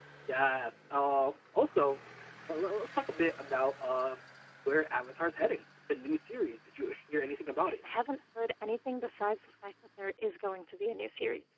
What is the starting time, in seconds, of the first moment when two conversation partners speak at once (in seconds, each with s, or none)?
none